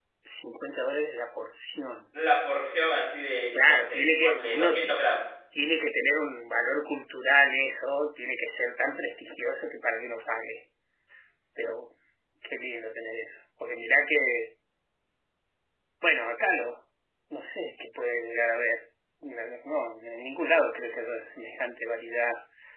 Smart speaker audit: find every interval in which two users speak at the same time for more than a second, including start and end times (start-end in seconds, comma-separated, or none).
3.6-5.0